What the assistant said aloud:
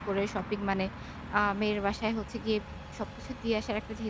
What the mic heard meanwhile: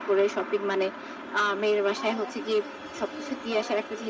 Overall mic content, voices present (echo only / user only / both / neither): both